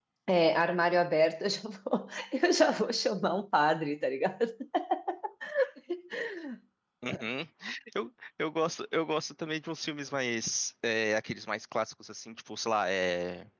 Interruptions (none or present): none